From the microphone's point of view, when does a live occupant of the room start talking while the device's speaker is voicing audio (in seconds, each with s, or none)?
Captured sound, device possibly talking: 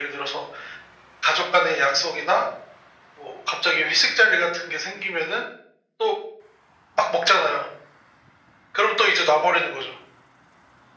none